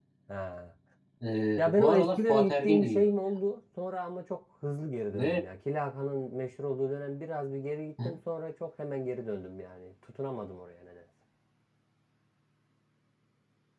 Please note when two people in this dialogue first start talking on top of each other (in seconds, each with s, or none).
1.6 s